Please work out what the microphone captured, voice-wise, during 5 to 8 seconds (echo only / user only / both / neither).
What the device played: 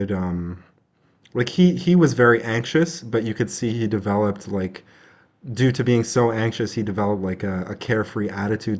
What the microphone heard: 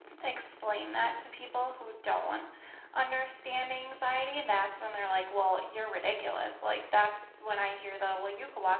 user only